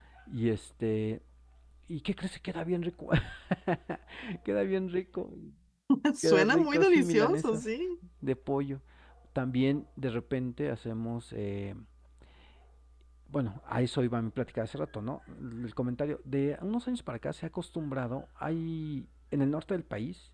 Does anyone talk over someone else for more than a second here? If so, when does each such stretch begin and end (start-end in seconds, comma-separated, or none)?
6.2-7.7